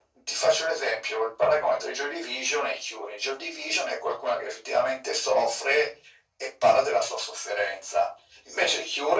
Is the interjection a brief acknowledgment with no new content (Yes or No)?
Yes